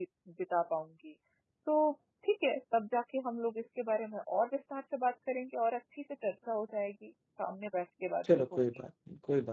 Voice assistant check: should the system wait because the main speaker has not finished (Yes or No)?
No